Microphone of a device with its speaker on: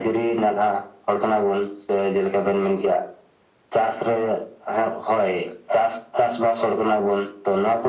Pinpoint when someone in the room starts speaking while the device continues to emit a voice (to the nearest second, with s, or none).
none